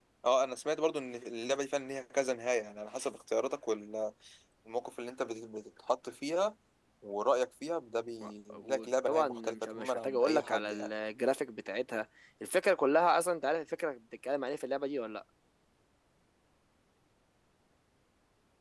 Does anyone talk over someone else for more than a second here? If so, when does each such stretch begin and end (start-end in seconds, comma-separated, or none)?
8.2-10.9